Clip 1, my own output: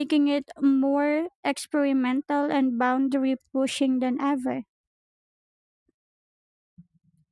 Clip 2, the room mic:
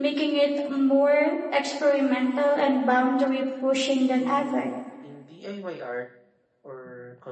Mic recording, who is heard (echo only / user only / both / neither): both